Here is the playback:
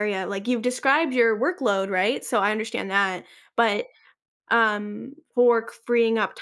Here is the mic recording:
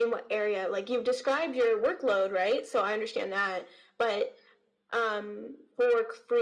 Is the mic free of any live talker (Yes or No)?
Yes